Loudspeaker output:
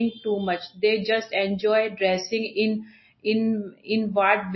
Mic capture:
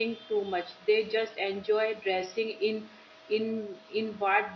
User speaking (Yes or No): No